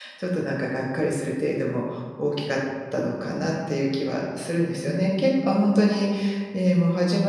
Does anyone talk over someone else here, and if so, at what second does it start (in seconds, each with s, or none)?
none